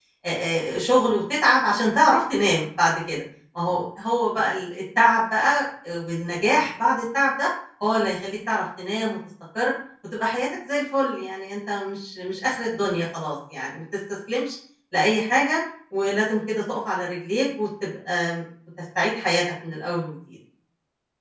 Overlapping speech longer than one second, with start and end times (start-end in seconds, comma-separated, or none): none